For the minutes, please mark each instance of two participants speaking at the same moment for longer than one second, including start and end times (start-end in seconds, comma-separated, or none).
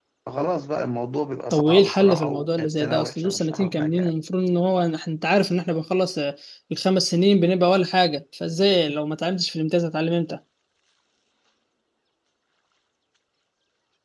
1.5-4.1